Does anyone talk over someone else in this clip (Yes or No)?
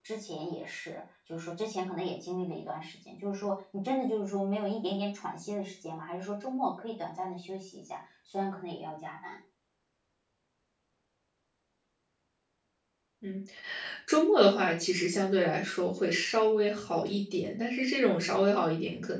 No